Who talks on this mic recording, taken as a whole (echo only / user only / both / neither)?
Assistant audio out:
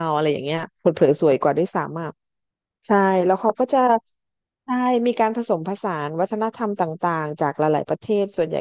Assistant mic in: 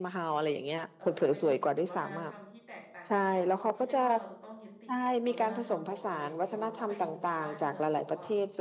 both